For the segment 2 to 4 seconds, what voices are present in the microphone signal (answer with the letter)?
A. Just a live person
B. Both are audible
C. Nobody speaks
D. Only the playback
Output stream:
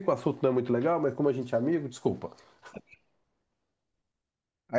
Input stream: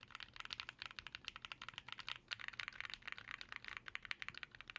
C